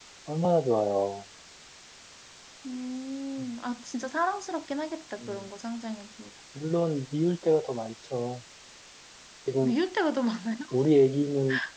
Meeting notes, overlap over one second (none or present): none